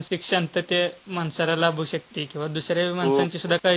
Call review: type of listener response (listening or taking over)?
listening